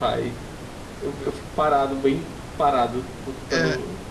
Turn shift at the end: Yes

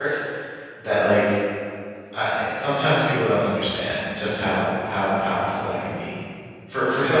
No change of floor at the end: Yes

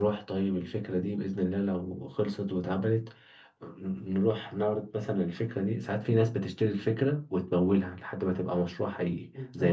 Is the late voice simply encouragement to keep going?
Yes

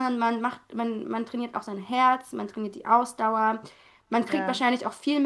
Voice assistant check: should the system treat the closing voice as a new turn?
No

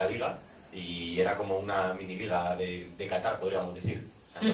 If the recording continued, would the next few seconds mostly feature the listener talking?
Yes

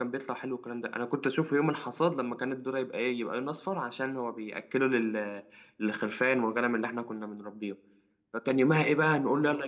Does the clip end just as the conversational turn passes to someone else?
No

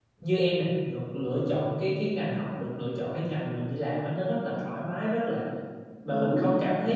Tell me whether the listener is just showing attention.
Yes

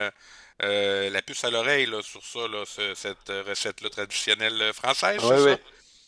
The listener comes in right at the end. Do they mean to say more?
Yes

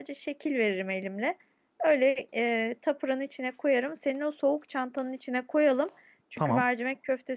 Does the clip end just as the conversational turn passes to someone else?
No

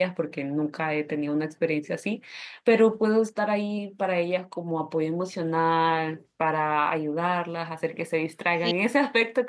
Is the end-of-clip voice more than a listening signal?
No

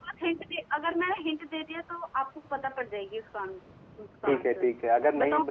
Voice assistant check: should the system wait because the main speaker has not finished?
No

